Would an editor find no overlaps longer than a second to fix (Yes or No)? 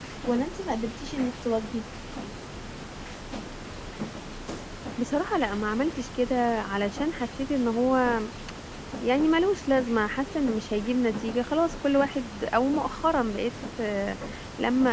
Yes